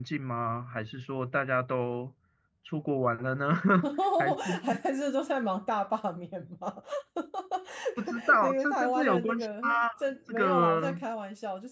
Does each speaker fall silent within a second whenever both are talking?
No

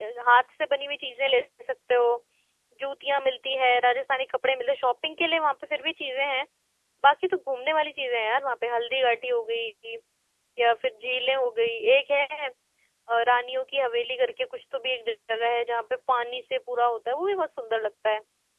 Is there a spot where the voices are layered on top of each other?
No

